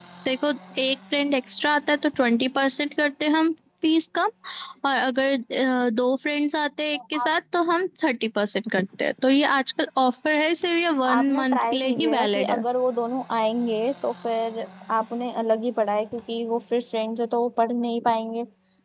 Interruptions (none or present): present